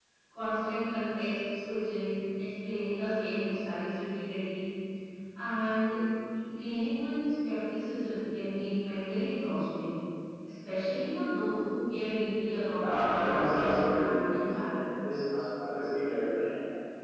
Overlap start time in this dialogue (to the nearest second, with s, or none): 13 s